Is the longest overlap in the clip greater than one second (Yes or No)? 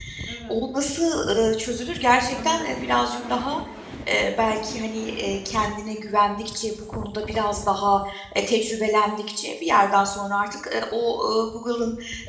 No